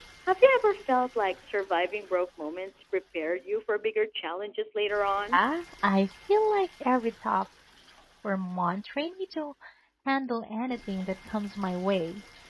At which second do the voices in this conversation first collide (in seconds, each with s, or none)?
none